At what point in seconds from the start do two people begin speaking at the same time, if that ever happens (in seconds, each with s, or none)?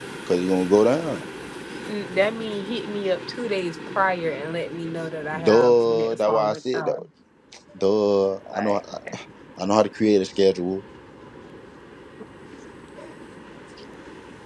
5.4 s